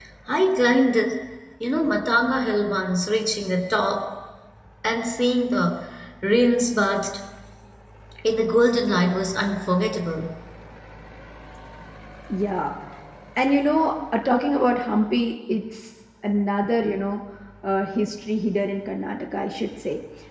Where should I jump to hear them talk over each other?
none

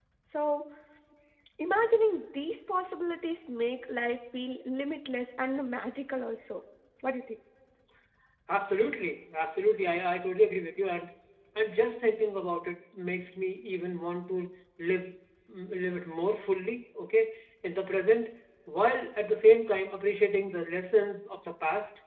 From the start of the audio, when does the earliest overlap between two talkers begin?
none

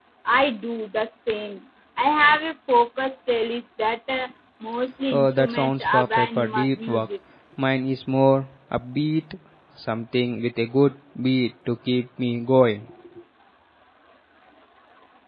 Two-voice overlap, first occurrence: 5.1 s

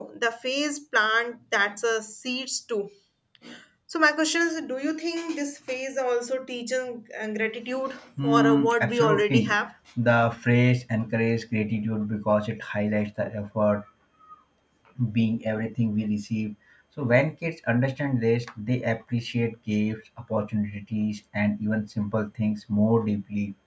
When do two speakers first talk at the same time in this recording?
8.2 s

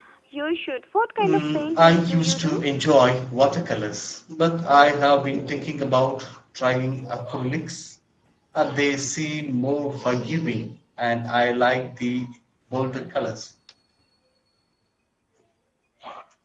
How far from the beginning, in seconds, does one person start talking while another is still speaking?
1.2 s

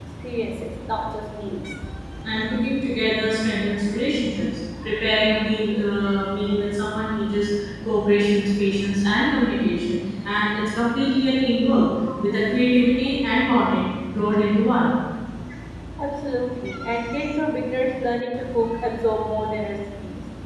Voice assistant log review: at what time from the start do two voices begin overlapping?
none

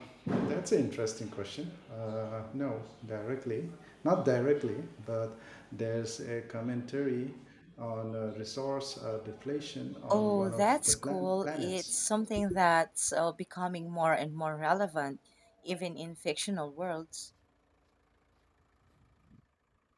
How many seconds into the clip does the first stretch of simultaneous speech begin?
10.1 s

